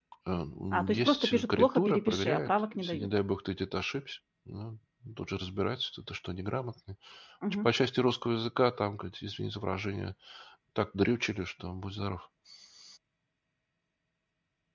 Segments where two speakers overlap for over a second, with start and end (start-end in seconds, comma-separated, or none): 0.7-3.1